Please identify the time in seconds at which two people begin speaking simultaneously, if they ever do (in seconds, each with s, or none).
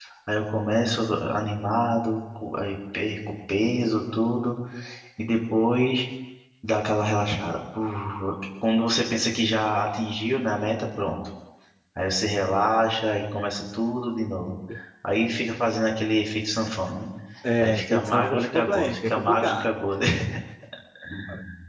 17.6 s